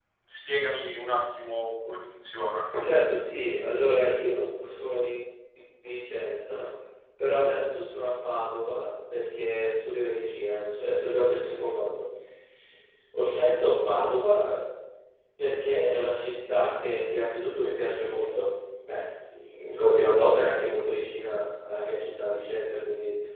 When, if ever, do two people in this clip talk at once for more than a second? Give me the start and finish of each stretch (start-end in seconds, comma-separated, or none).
none